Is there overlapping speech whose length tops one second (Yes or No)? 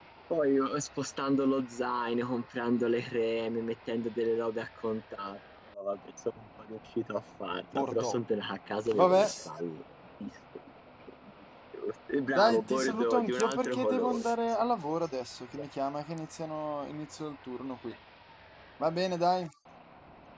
Yes